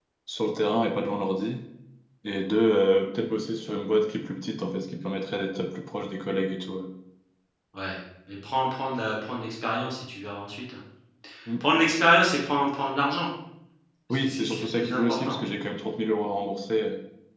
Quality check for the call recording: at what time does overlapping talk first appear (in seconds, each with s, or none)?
14.1 s